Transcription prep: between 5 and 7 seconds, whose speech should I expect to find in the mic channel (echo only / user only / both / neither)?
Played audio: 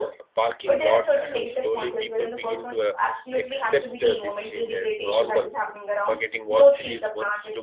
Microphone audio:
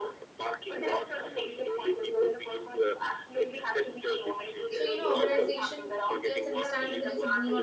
both